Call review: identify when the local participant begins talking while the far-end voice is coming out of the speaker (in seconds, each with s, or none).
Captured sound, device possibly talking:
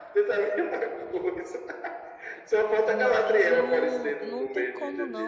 2.9 s